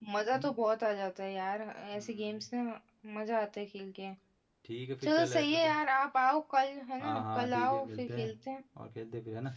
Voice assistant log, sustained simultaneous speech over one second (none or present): present